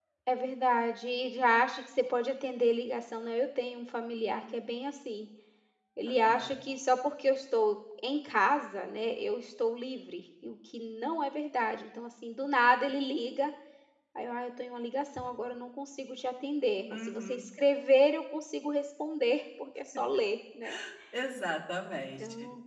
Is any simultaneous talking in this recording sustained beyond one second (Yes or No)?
No